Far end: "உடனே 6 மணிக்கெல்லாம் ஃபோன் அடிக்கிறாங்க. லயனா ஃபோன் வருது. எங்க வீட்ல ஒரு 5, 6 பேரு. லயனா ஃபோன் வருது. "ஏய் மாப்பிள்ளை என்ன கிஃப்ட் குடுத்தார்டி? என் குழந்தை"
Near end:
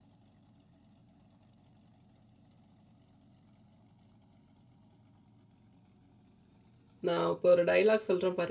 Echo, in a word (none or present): none